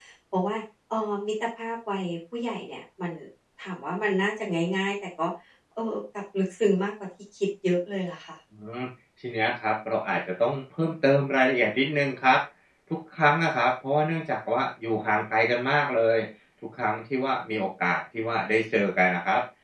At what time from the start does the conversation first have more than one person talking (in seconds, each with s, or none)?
none